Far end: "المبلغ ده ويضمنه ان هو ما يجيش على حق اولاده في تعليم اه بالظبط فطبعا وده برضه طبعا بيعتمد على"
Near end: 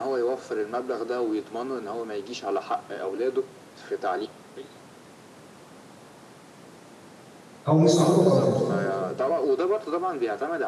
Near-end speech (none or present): present